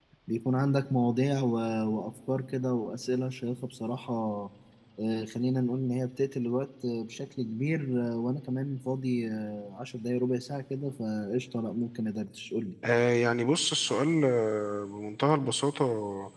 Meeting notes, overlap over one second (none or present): none